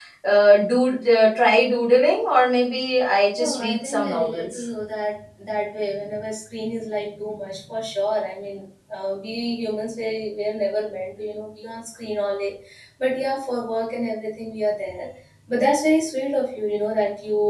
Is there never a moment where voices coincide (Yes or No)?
No